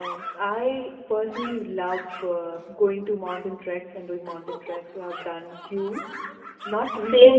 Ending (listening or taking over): listening